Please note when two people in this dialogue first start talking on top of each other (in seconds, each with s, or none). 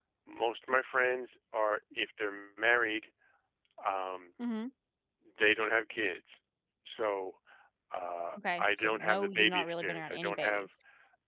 8.6 s